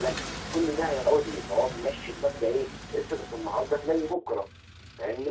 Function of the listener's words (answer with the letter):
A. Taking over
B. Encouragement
A